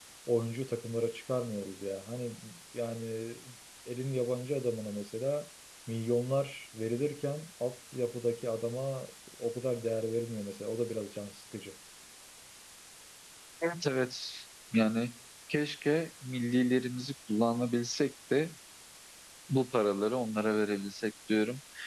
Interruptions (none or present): none